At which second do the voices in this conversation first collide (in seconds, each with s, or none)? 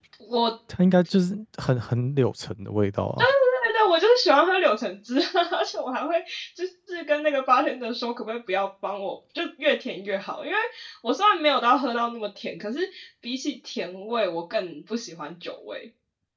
none